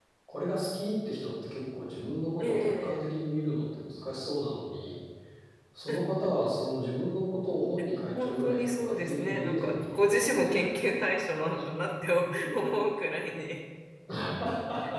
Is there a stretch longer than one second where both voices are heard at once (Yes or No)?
Yes